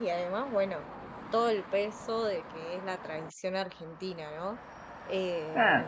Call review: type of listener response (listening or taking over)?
listening